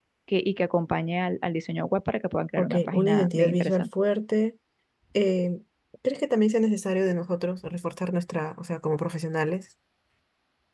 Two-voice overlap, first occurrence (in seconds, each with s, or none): 2.6 s